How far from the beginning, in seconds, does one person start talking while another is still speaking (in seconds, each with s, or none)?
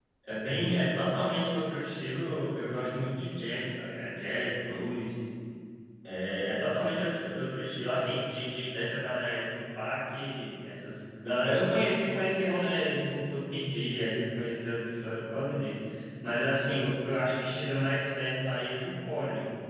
none